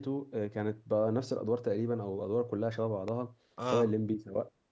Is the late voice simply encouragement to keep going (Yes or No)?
Yes